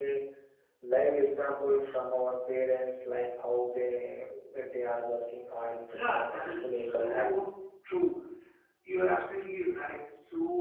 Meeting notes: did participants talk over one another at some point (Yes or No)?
Yes